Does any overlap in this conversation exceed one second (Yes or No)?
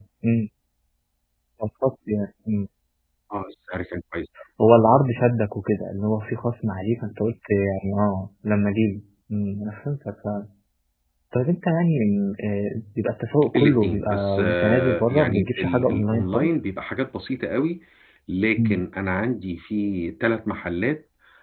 Yes